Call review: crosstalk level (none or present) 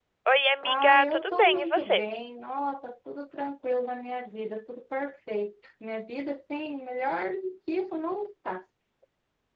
present